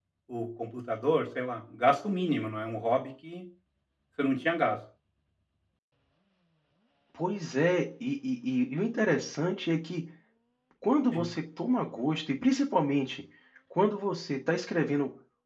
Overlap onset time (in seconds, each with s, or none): none